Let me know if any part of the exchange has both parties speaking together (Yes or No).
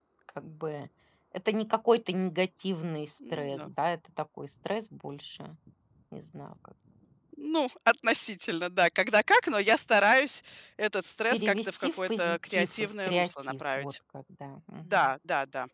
Yes